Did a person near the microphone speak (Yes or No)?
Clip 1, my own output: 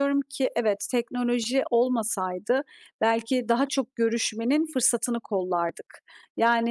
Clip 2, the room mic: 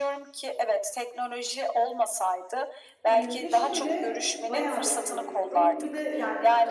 Yes